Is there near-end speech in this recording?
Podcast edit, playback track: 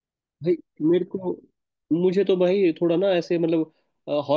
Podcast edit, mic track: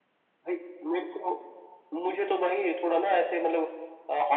No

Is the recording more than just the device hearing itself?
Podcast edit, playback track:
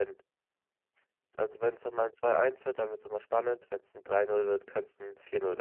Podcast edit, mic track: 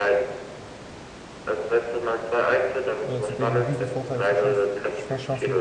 Yes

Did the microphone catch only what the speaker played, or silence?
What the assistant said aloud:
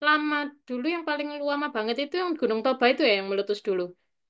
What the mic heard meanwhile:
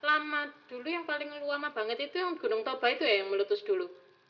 Yes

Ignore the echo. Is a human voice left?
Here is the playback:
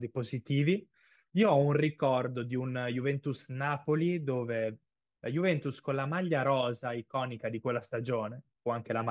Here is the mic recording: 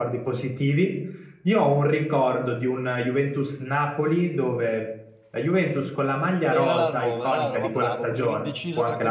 Yes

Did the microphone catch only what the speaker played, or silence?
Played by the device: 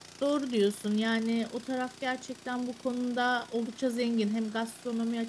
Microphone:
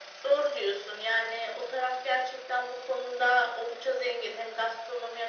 Yes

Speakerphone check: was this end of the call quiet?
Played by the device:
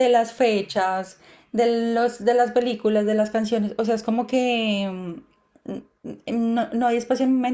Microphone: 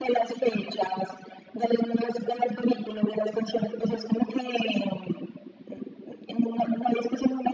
Yes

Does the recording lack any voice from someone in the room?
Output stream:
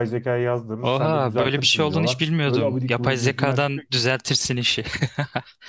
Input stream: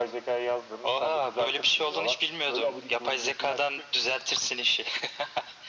Yes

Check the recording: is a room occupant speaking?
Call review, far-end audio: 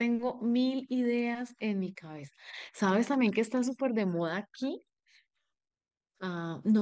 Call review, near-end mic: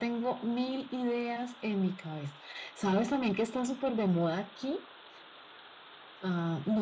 No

